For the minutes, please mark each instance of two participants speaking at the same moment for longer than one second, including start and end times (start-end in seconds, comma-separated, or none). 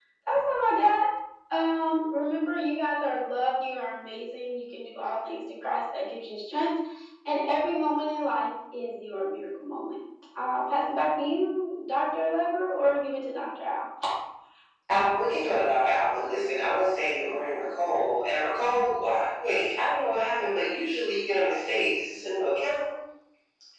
none